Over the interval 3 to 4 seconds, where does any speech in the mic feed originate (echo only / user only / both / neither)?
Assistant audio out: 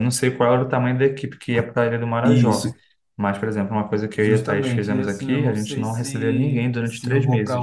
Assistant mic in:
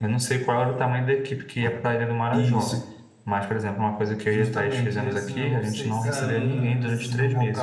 echo only